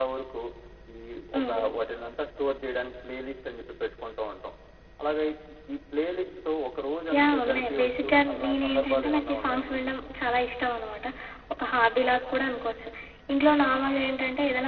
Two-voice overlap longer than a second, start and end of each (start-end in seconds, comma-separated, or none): 7.2-9.9